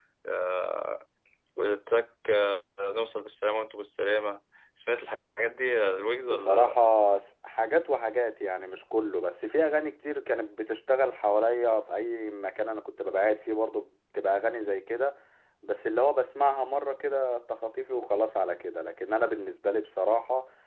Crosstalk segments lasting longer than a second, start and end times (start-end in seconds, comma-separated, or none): none